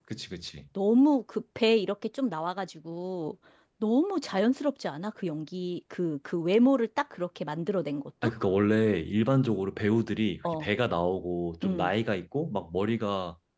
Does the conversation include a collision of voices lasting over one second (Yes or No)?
No